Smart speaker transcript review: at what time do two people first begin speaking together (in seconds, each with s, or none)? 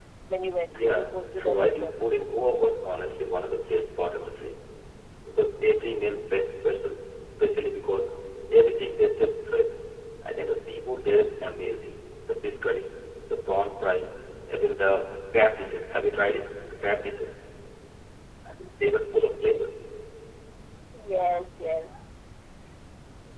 0.7 s